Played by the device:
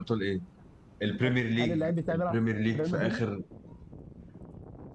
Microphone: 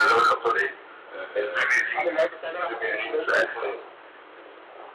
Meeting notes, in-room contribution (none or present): present